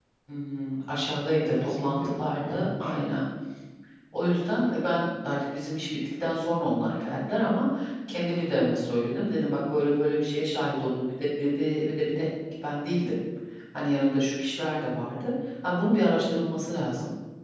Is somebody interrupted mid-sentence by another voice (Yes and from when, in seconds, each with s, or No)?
Yes, from 1.5 s